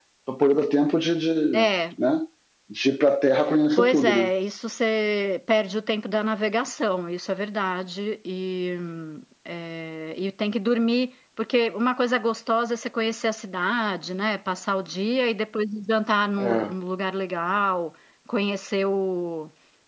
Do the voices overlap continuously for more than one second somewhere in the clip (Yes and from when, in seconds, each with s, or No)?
No